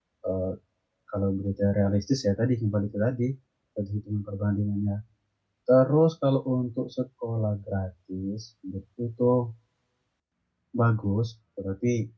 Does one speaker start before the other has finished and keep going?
No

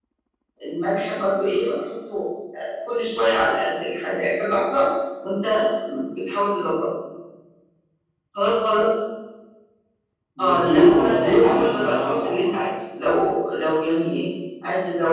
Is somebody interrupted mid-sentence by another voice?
Yes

